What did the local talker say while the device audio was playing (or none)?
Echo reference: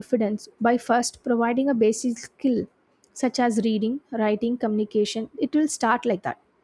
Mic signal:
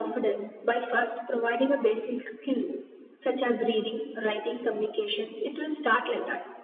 none